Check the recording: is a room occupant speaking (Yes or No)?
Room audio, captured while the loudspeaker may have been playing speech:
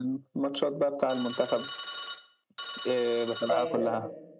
Yes